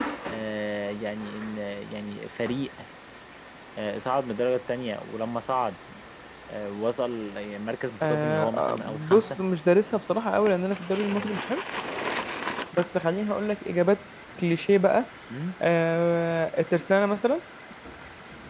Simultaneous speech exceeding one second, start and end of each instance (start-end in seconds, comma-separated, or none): 8.0-9.3